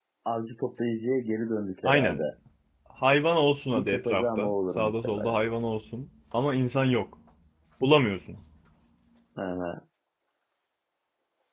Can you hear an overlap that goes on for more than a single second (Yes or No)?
Yes